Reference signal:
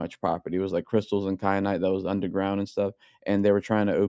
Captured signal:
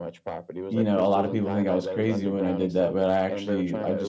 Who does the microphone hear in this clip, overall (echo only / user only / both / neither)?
both